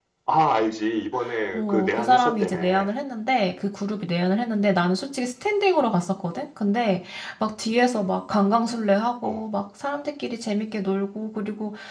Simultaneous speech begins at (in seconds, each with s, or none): 1.5 s